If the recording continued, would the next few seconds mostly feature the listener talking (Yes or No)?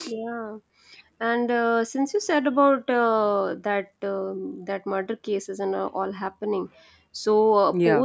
No